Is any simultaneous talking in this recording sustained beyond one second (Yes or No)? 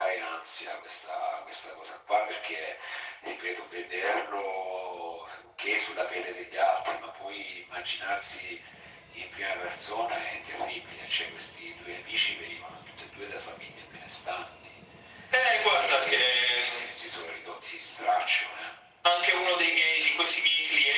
Yes